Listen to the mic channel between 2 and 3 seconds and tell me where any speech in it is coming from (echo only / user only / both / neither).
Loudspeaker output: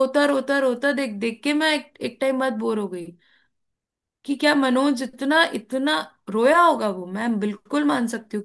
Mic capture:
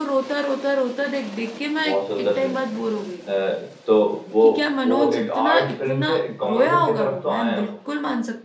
both